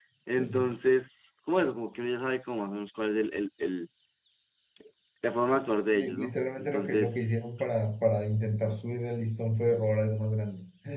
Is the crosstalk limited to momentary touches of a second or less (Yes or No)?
No